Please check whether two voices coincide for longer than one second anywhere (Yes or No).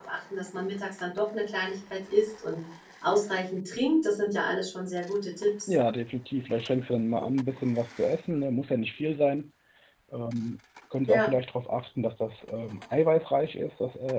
No